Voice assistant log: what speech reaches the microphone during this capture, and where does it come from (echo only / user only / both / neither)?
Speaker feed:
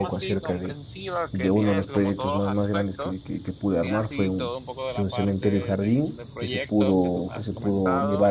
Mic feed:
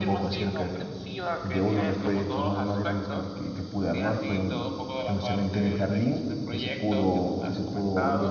echo only